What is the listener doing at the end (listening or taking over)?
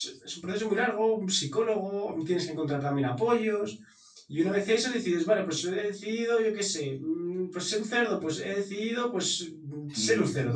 taking over